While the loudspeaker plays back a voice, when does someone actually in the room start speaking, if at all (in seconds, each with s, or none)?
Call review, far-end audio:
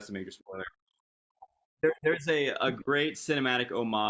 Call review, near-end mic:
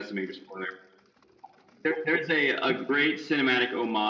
none